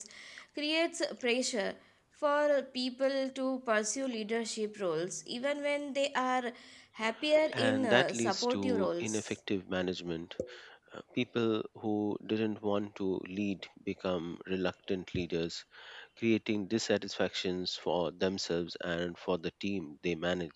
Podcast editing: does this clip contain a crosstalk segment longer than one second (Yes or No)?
Yes